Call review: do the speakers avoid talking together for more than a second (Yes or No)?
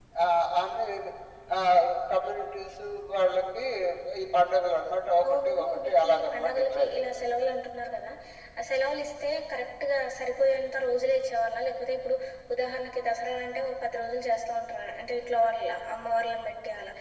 No